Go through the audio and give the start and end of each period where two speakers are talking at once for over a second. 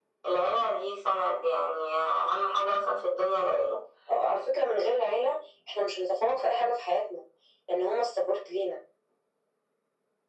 none

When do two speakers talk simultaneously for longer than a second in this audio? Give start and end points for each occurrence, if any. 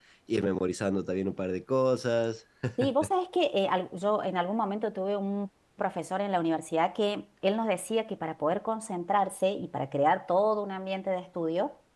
none

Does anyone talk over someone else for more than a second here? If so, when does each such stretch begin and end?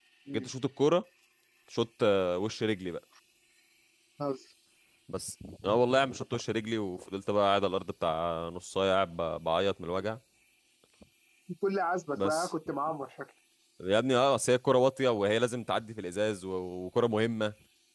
none

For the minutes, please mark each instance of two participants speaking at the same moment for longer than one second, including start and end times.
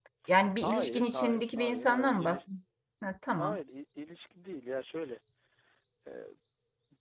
0.6-2.4

